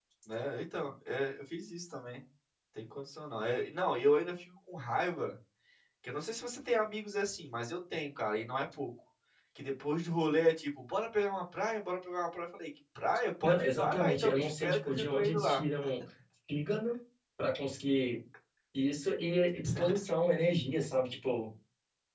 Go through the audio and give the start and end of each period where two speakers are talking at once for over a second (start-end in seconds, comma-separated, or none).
13.4-15.6